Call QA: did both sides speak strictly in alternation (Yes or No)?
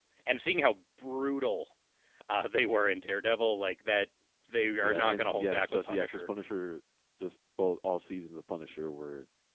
No